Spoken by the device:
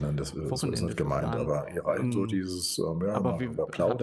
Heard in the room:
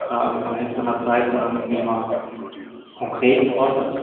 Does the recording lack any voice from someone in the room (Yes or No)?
No